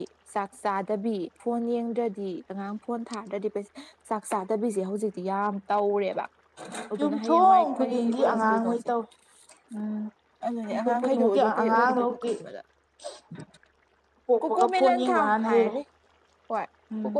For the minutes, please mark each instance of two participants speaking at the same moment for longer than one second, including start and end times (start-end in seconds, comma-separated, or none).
7.0-8.8, 10.7-12.4, 14.4-15.7